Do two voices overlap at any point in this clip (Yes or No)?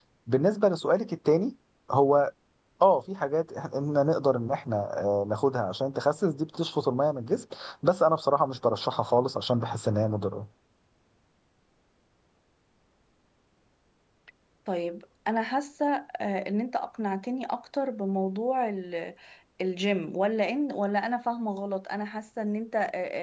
No